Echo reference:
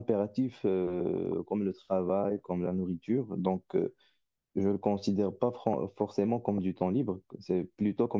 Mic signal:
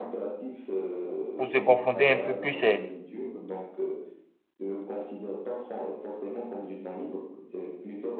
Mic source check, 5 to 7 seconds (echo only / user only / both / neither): echo only